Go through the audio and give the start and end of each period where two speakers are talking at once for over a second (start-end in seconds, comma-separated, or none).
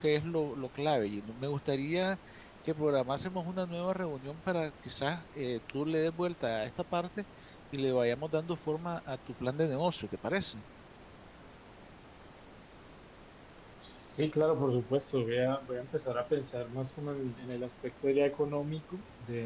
none